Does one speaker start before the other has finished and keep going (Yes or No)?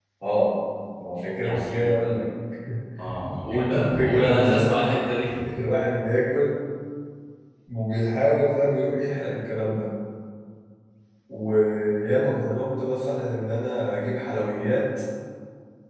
Yes